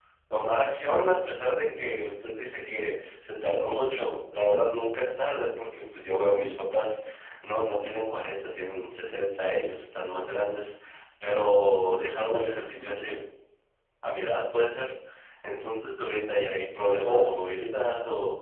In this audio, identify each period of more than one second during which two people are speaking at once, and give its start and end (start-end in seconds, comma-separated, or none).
none